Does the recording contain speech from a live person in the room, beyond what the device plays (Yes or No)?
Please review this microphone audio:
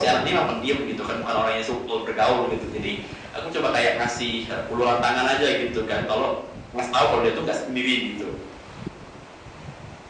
No